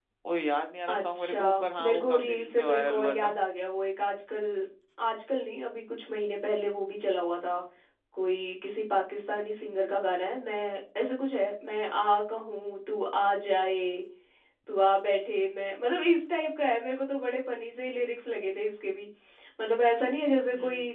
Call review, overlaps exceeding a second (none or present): present